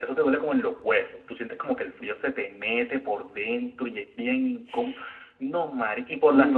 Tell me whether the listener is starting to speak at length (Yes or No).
No